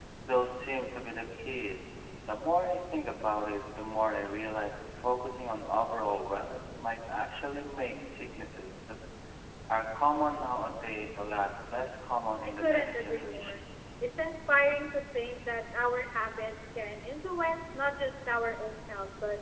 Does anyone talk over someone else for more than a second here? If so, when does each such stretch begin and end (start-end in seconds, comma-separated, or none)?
12.4-13.6